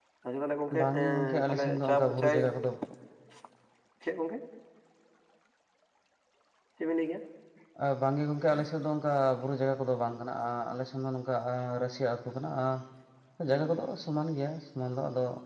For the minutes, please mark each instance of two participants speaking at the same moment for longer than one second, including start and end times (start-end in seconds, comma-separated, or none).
0.8-2.4